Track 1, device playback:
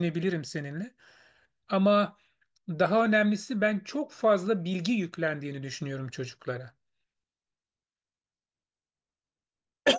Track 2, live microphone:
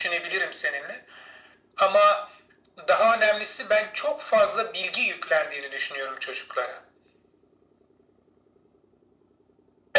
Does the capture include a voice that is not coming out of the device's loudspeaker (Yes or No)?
No